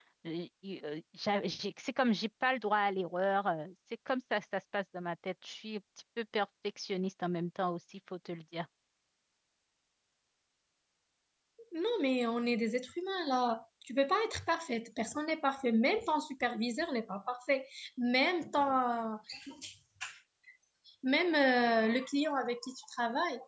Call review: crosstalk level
none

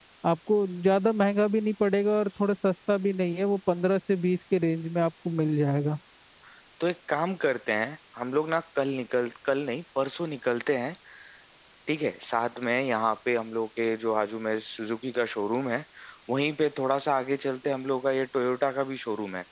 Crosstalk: none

